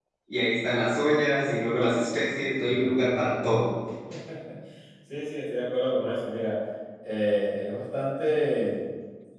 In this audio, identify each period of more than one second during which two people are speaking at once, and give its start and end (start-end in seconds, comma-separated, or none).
none